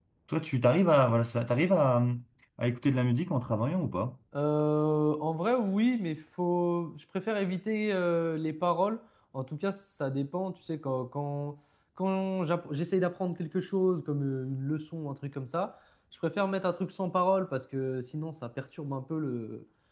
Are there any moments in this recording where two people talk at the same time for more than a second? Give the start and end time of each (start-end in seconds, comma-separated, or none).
none